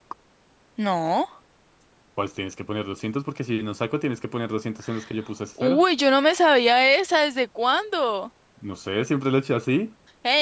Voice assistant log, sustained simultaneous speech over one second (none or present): none